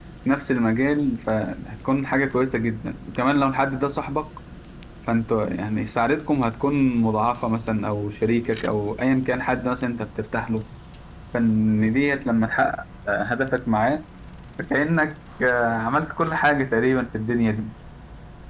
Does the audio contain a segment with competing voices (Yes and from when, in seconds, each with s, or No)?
No